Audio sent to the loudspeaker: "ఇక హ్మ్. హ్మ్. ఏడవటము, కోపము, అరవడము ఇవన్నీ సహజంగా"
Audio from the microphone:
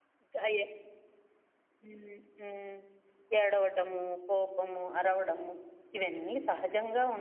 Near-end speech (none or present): none